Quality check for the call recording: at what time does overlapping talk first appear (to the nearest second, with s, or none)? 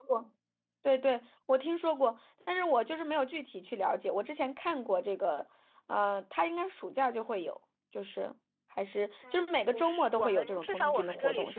9 s